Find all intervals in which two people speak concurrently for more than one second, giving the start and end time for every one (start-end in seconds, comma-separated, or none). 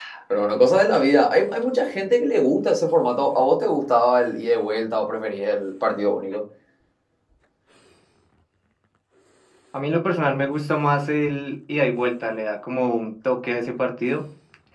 none